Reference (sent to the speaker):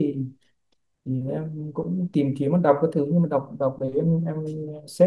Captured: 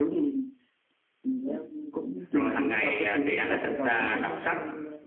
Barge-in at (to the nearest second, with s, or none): 2 s